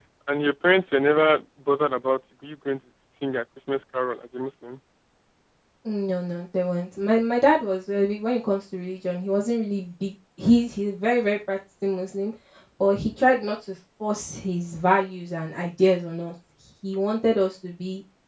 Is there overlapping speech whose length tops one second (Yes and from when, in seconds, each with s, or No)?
No